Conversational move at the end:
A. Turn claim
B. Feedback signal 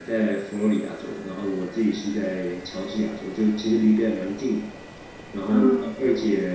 B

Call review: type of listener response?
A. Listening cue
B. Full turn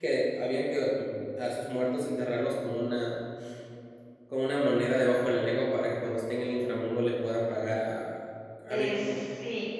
B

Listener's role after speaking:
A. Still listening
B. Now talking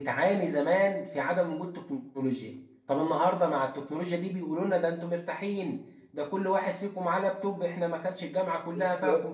A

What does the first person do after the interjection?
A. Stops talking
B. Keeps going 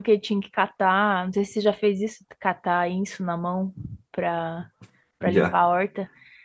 B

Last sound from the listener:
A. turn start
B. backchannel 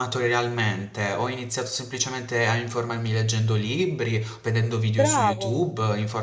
B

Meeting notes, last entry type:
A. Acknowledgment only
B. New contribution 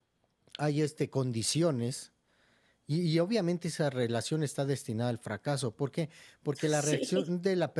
A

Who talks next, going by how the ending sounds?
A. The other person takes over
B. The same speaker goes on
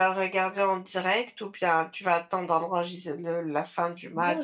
A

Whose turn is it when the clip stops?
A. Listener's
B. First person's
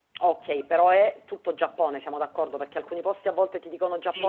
A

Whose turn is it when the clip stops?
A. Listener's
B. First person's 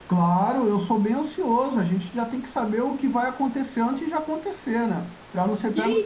A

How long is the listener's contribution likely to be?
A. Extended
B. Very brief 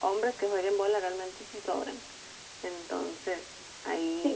A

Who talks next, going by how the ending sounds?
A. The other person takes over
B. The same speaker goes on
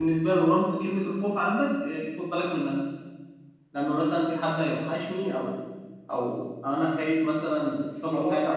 A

